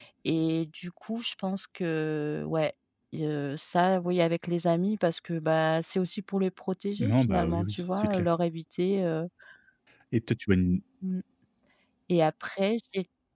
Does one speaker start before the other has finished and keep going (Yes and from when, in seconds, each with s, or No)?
Yes, from 7.0 s